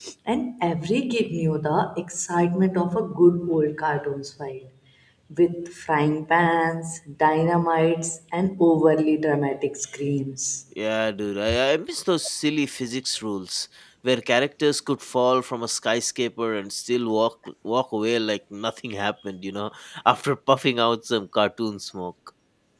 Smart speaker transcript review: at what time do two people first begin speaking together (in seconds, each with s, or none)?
none